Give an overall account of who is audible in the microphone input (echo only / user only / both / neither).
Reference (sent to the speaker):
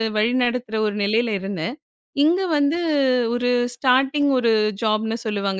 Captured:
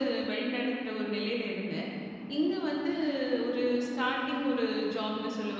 echo only